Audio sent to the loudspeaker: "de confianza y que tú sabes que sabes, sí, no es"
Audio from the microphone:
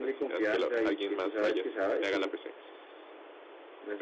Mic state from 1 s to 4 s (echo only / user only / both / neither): both